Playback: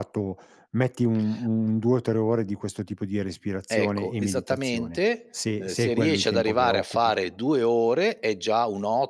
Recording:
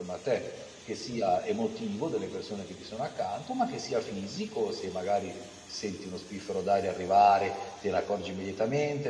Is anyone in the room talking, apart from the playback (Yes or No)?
Yes